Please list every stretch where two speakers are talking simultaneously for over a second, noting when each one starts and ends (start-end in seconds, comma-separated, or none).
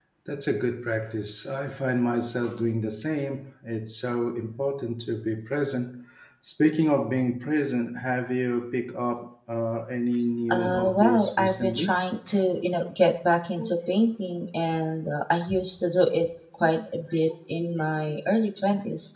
10.5-12.0